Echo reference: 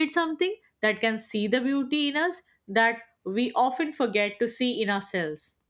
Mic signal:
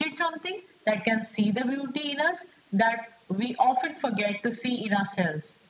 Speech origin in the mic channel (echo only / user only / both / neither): echo only